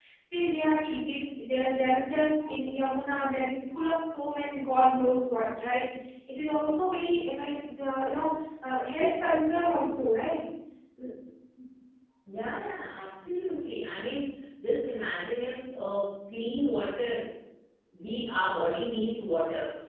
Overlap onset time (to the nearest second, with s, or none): none